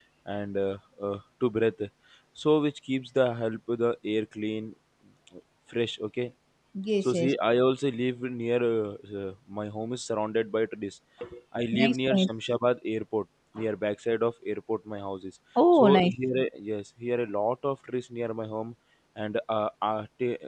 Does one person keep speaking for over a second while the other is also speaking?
No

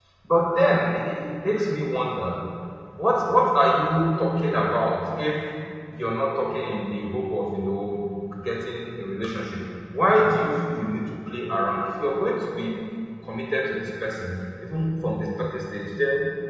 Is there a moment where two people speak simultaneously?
No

